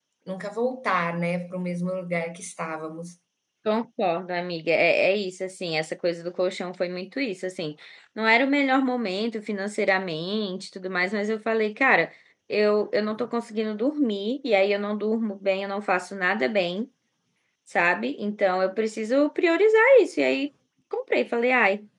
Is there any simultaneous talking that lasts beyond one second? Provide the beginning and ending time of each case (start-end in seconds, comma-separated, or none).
none